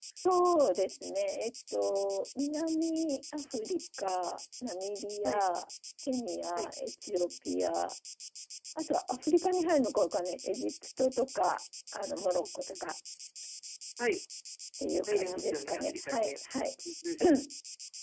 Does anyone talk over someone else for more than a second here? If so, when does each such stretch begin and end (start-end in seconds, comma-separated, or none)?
15.1-16.3